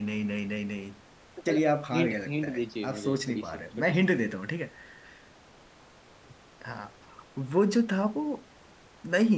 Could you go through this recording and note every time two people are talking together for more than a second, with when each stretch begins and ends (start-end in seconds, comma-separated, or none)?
1.9-4.0